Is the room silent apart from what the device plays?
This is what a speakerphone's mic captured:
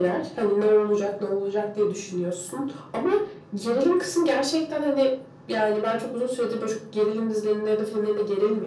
Yes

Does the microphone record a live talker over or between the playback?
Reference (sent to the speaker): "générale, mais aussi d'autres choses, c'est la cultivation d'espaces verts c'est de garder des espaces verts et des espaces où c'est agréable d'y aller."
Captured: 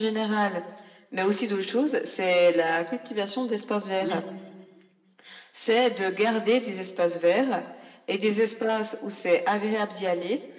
Yes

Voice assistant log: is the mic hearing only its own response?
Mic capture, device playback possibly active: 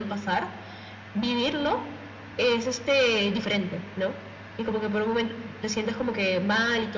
Yes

